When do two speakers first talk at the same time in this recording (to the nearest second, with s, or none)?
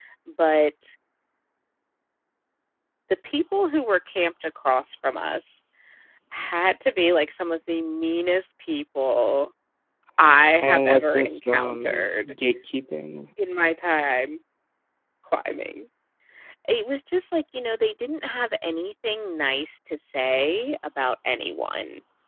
11 s